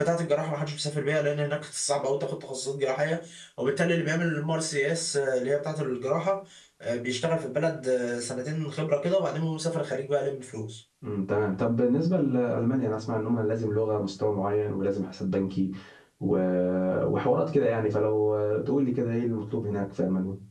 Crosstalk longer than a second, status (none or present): none